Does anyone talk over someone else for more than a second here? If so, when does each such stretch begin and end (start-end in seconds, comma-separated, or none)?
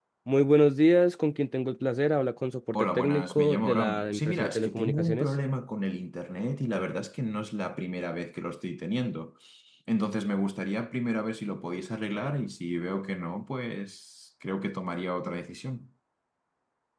2.8-5.3